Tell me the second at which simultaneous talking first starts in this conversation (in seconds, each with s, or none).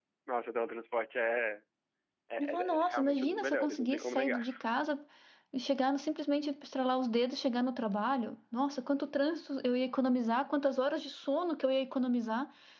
2.4 s